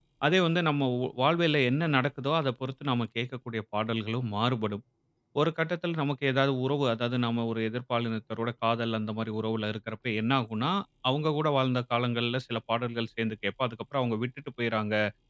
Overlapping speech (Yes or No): No